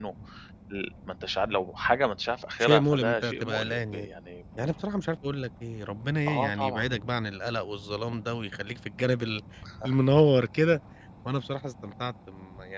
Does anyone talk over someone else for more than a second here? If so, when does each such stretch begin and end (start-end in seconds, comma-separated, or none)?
2.6-4.1